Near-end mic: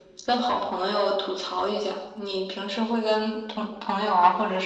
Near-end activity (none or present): none